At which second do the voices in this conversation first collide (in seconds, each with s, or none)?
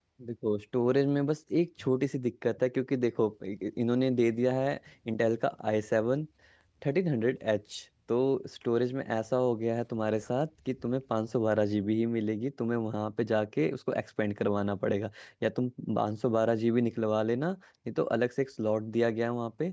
none